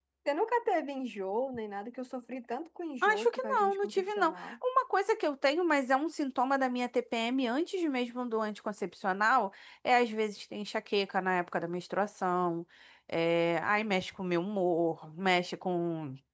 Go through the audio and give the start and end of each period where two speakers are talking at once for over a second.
3.0-4.6

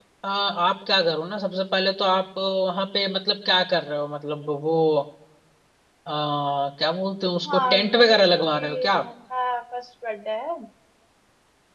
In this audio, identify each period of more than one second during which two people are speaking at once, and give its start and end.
7.5-9.0

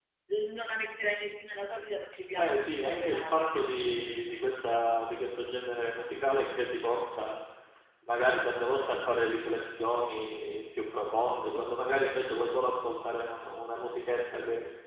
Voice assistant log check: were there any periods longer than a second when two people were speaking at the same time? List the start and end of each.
2.4-3.6

